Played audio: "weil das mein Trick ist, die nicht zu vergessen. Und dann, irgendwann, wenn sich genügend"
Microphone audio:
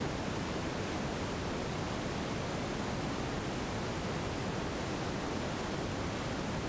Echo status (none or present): none